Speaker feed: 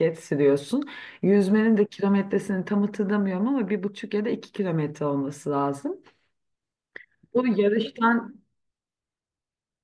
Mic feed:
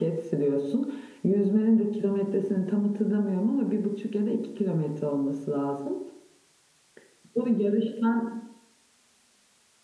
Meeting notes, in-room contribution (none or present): none